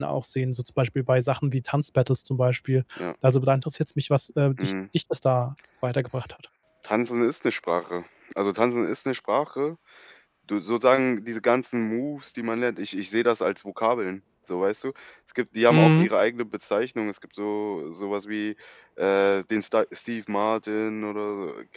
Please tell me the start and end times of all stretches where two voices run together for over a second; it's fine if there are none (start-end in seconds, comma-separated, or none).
none